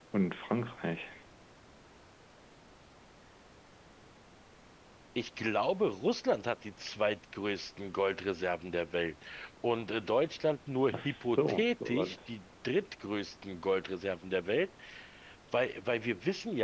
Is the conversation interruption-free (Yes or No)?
No